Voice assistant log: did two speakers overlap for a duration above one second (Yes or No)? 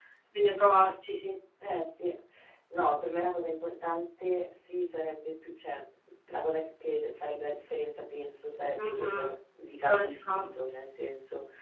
No